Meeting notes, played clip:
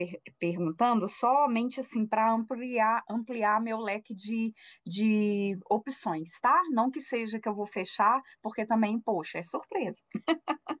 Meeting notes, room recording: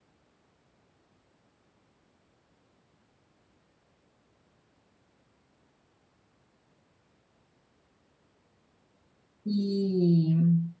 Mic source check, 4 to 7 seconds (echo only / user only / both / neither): neither